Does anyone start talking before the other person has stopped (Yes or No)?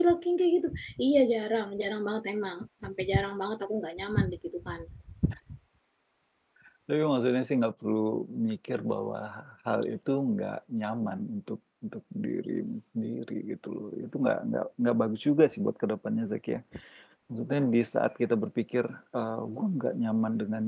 No